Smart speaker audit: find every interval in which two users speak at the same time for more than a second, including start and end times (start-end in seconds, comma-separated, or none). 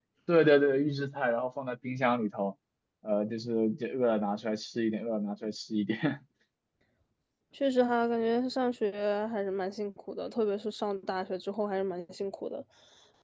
none